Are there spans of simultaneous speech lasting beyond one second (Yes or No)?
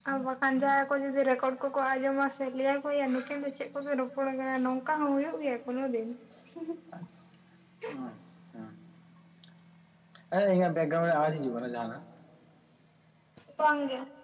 No